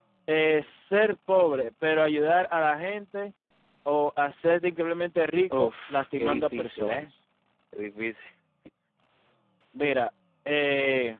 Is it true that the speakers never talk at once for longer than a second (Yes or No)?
No